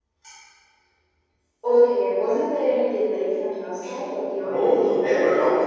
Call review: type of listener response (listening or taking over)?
taking over